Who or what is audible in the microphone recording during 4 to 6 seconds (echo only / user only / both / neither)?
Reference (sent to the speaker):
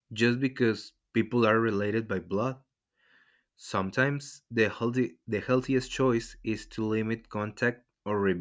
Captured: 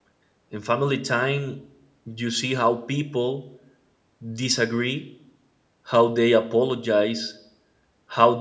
user only